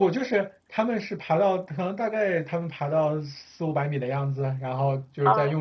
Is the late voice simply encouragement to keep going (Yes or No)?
Yes